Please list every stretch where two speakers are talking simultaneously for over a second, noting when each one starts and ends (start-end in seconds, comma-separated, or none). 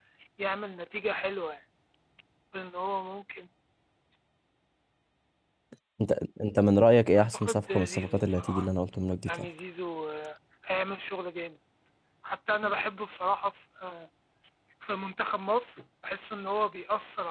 7.2-8.7